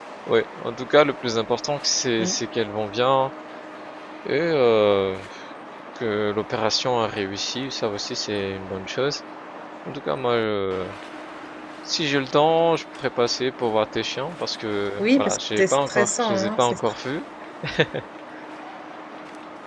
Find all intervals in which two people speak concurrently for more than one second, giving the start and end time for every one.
15.0-16.8

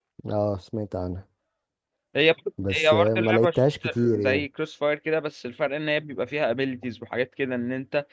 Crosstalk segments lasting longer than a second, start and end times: 2.7-4.5

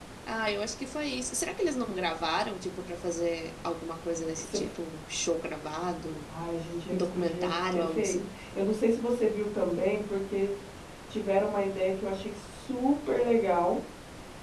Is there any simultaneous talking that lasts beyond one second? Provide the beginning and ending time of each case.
6.9-8.2

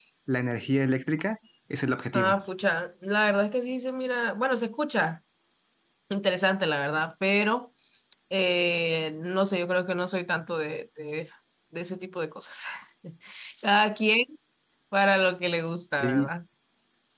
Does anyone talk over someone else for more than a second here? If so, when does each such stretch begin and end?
none

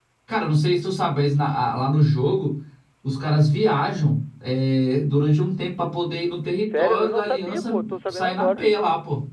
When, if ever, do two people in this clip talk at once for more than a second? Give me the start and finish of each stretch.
6.7-8.6

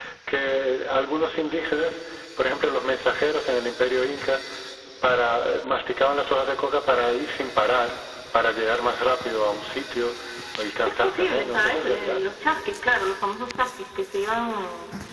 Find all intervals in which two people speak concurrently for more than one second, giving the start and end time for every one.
10.8-12.2

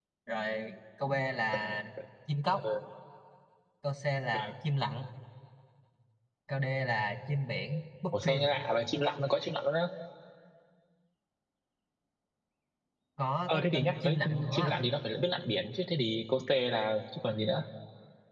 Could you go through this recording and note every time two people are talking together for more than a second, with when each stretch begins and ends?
13.5-14.8

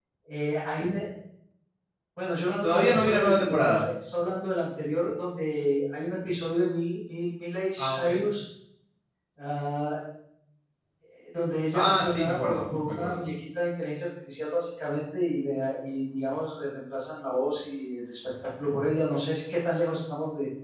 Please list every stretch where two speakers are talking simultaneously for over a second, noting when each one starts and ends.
2.6-3.9, 11.7-13.3

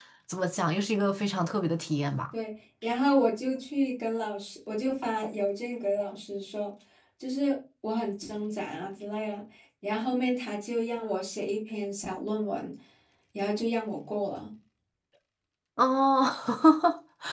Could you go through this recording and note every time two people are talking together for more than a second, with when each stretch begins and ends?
none

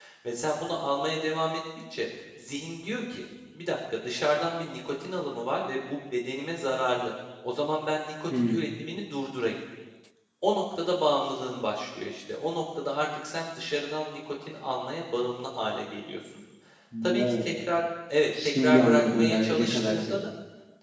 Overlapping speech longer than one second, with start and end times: 18.4-20.2

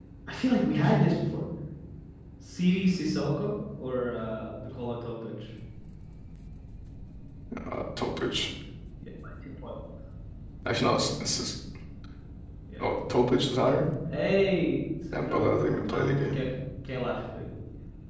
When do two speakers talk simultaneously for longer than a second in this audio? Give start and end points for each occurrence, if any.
15.1-16.4

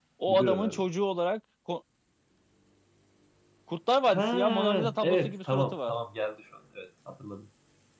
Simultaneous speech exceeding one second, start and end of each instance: 4.1-5.9

